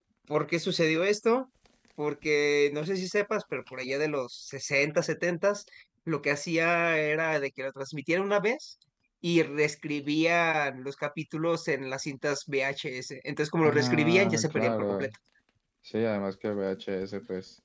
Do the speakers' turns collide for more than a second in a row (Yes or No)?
Yes